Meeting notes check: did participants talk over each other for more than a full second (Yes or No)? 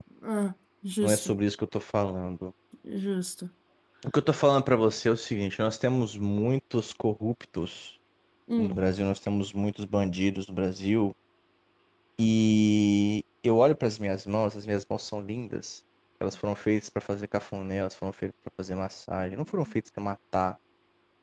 No